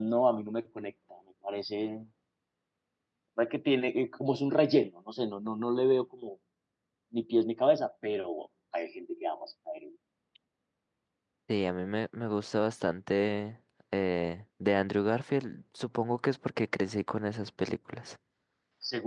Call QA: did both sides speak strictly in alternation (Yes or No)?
Yes